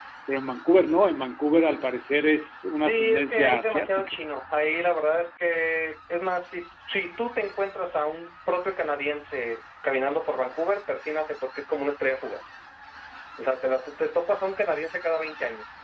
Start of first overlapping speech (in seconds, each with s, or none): 2.8 s